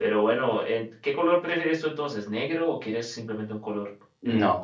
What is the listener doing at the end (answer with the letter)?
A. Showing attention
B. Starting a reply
B